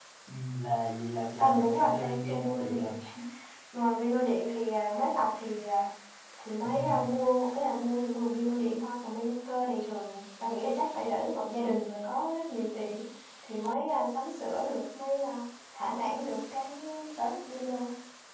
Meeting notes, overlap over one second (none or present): present